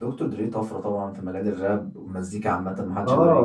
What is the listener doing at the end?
taking over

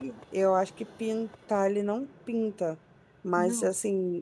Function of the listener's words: listening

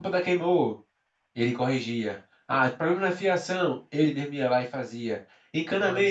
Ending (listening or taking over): listening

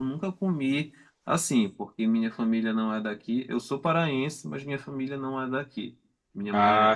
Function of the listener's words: listening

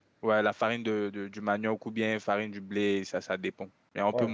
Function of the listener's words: taking over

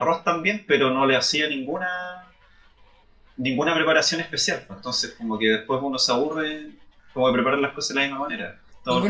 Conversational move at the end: taking over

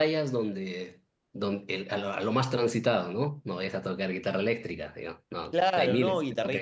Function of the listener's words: taking over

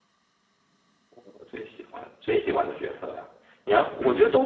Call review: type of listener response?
listening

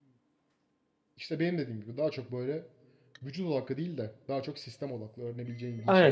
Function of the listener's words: taking over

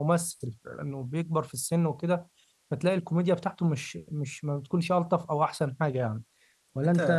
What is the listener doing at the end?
taking over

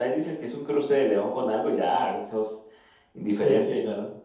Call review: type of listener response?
taking over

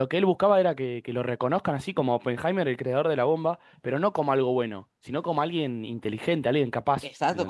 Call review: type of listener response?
taking over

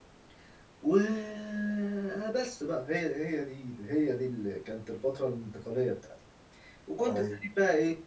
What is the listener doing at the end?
listening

